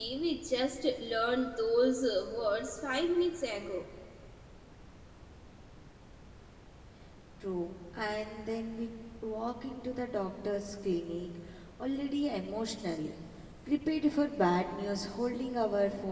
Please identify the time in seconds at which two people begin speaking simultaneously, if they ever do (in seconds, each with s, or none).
none